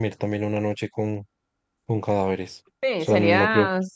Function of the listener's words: taking over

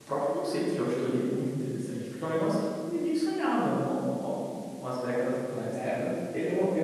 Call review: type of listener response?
taking over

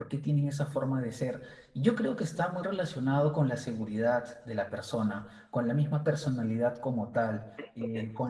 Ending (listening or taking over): listening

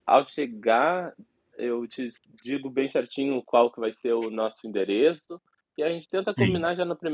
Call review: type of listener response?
listening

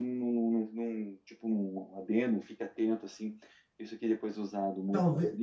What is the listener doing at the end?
taking over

